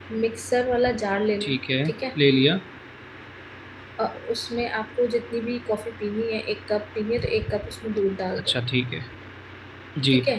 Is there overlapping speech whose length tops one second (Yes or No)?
No